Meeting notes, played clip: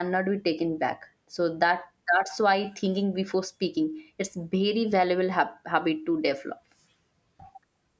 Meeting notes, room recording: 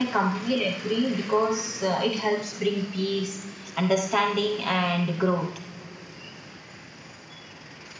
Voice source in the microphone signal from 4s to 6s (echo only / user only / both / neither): user only